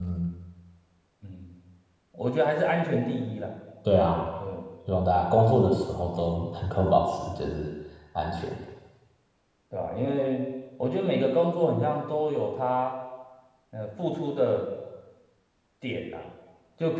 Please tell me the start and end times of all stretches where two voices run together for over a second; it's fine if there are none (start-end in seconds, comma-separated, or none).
none